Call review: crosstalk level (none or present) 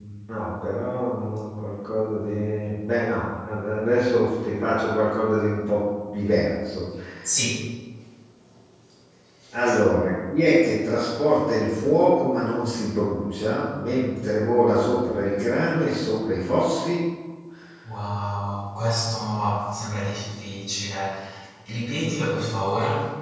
none